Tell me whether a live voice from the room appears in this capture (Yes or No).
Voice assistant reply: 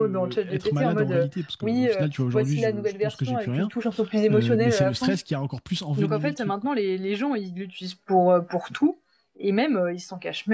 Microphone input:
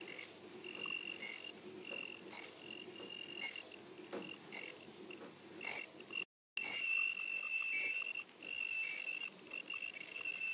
No